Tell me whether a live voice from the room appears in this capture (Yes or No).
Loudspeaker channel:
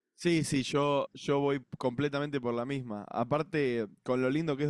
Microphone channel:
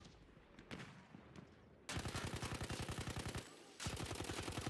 No